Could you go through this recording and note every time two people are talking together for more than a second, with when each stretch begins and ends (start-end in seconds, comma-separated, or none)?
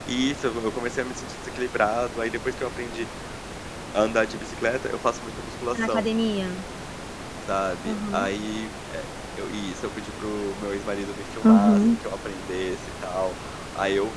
none